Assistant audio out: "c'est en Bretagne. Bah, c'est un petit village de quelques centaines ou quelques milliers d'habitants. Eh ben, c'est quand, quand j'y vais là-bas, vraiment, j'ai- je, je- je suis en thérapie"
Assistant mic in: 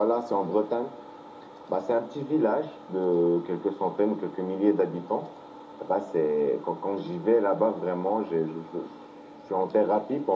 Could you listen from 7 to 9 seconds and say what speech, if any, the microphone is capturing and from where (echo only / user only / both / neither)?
echo only